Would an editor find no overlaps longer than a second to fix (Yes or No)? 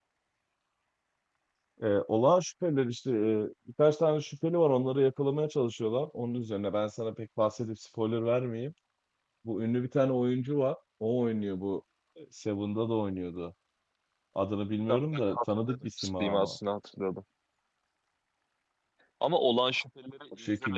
No